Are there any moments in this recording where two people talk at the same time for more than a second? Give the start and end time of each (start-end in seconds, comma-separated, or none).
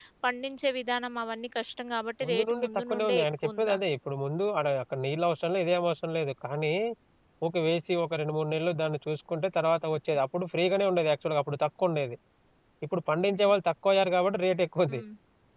2.2-3.8